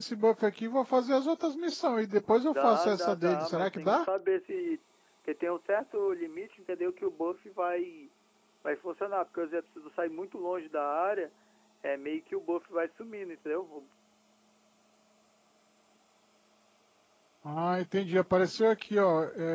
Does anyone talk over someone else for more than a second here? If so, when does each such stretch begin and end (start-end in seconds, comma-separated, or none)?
2.5-4.0